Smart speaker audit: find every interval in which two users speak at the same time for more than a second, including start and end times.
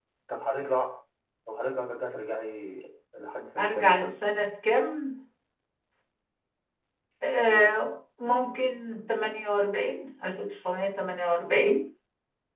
none

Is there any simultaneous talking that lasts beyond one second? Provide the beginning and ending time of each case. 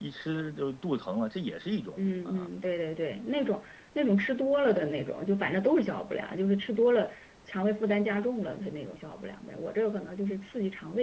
none

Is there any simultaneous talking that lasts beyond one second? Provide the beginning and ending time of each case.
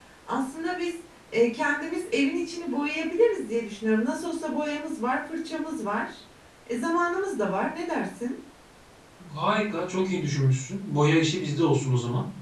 none

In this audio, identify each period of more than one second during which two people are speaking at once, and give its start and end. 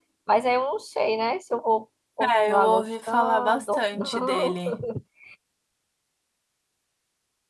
2.2-4.6

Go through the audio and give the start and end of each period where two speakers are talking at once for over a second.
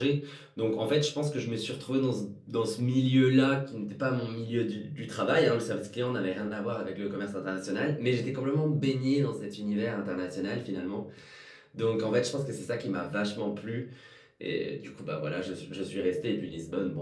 none

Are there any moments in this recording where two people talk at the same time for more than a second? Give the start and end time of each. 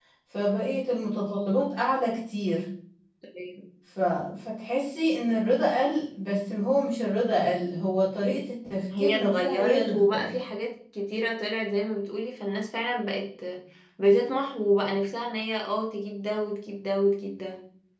9.0-10.3

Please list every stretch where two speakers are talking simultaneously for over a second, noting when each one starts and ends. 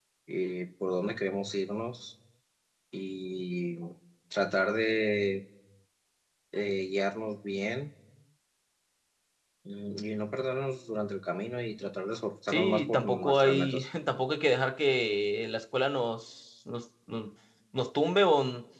12.5-13.9

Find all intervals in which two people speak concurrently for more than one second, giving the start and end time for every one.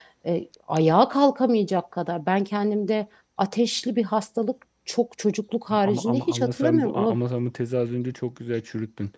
5.7-7.2

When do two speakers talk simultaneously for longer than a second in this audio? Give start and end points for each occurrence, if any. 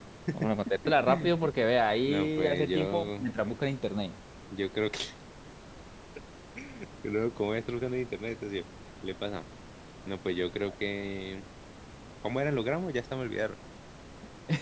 2.1-3.3

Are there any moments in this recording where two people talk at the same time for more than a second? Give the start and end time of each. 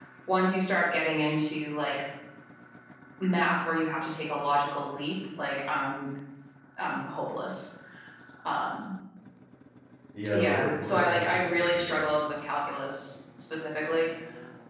10.3-12.0

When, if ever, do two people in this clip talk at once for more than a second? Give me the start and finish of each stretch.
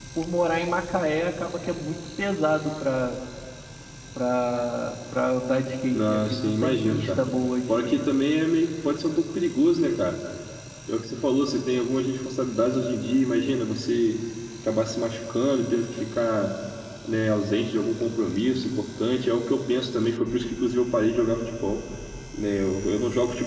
6.0-7.2

